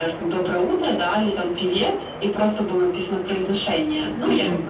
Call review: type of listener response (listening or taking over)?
taking over